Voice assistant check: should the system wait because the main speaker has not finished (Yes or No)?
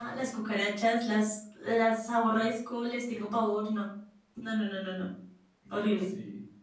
No